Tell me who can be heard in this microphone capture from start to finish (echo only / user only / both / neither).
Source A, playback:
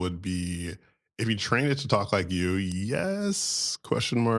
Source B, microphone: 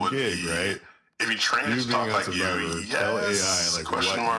both